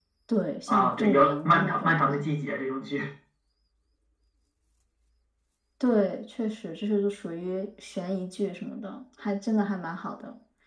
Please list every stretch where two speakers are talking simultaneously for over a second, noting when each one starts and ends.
0.7-2.2

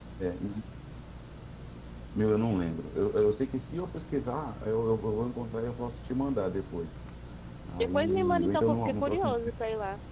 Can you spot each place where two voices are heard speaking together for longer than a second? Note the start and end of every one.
7.8-9.3

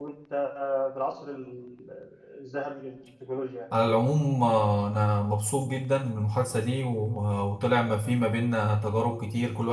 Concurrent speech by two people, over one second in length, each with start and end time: none

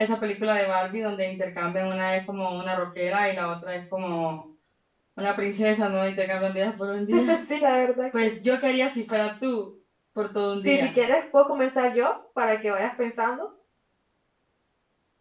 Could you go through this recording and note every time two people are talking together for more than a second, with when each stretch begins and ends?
none

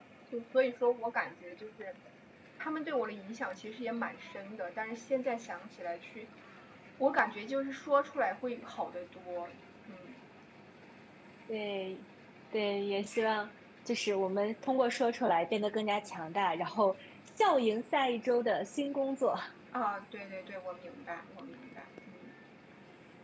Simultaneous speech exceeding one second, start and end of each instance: none

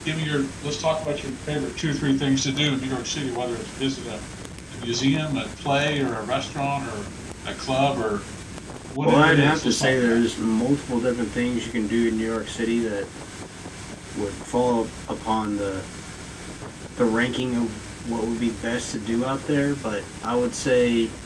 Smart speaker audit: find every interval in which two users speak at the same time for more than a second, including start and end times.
9.0-10.2

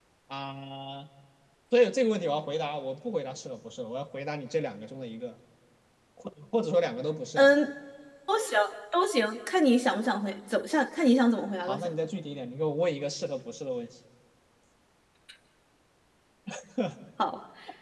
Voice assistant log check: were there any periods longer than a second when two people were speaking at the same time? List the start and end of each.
none

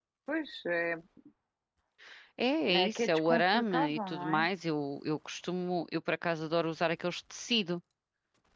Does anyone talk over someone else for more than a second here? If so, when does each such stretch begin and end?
2.7-4.5

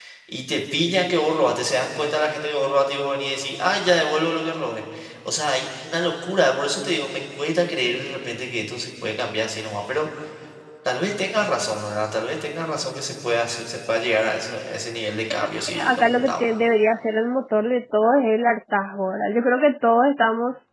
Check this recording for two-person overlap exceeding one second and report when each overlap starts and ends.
15.3-16.5

